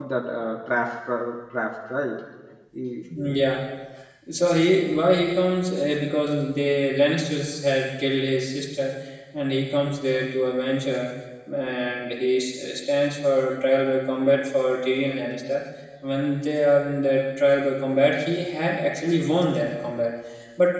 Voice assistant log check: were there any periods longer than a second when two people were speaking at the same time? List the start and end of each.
none

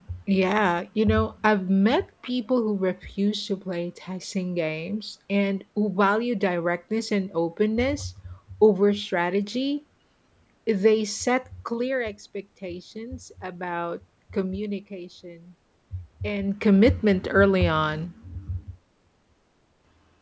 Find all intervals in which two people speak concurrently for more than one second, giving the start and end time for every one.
none

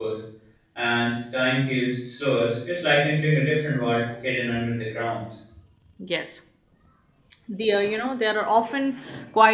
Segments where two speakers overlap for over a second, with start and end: none

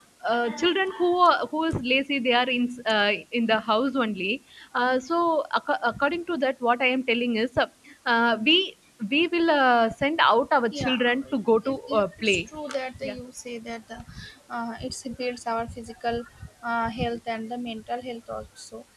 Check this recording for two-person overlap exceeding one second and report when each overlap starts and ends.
10.7-12.4

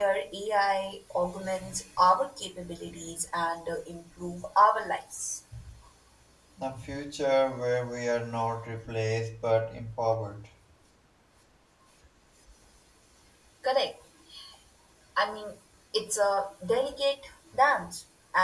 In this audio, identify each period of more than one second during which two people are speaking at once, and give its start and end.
none

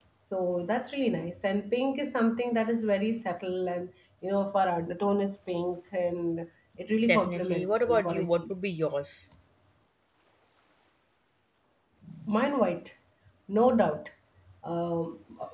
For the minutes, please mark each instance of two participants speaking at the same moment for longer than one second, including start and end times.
7.1-8.5

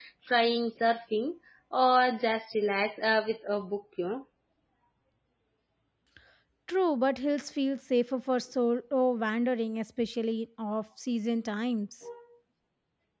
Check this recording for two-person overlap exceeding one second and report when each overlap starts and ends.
none

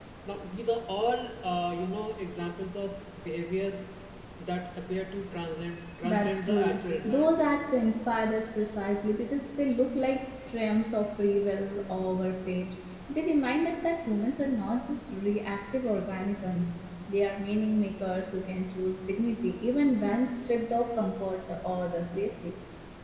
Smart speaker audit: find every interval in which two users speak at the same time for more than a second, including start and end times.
6.0-7.5

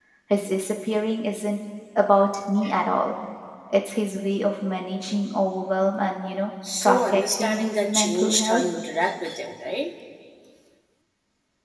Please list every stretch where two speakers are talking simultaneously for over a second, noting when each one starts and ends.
6.8-8.6

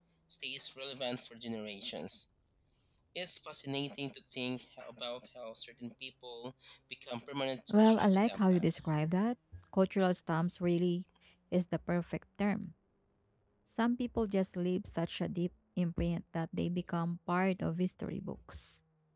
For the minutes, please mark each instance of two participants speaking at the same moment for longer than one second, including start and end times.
7.7-8.9

